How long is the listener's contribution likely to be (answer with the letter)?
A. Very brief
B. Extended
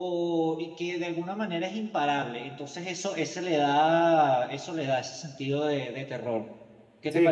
B